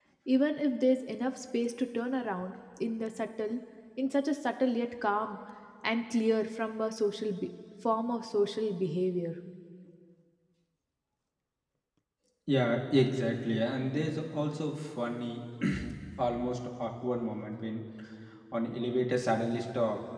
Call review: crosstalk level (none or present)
none